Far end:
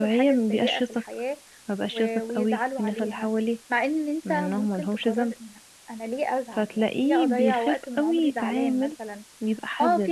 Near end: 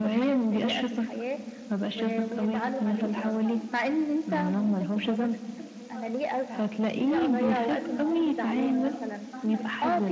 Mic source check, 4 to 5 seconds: both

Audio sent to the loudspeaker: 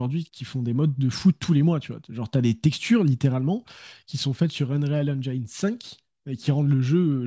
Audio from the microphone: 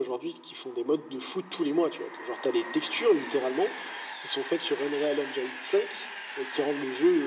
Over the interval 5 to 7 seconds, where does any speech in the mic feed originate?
echo only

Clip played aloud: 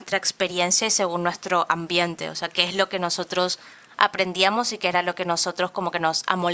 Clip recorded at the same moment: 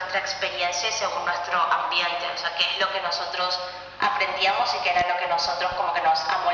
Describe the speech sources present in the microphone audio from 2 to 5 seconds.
echo only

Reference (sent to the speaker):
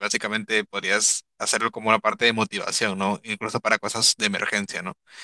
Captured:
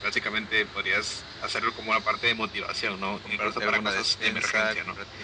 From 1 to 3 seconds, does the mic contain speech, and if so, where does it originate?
echo only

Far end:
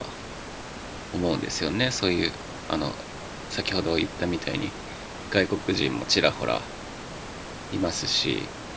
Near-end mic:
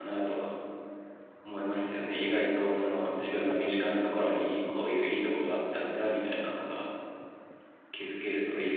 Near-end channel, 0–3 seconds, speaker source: user only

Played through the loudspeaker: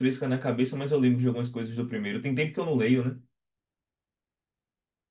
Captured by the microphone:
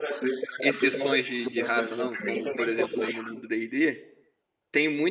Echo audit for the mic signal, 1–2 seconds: both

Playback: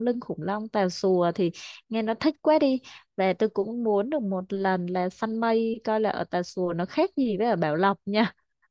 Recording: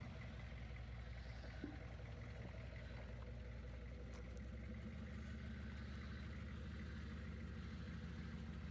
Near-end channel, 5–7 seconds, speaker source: neither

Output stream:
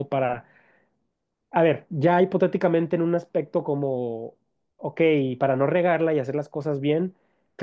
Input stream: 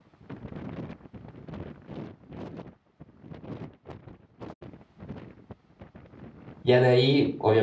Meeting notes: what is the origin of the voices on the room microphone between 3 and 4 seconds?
neither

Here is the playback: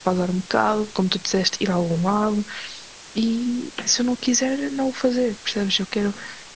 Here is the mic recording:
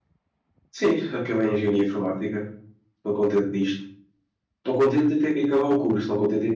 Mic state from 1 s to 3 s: user only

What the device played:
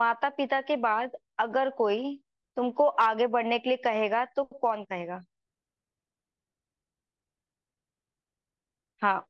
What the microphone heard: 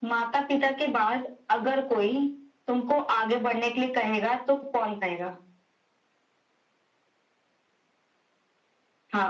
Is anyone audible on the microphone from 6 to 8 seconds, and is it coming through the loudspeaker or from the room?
neither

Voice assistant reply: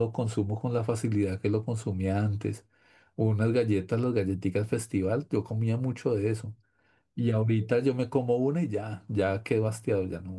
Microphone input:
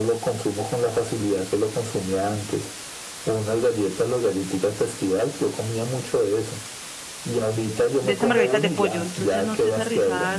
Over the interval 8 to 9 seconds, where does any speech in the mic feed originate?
both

